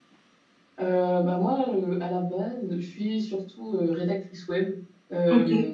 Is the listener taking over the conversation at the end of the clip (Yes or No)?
No